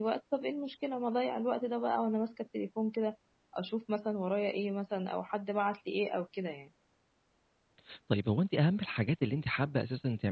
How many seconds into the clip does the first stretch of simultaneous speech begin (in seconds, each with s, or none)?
none